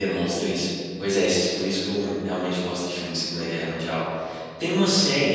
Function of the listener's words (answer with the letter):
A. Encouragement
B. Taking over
A